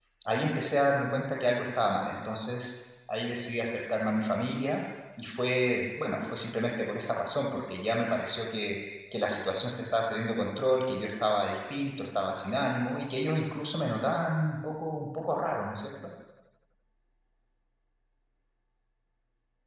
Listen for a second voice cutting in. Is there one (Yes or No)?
No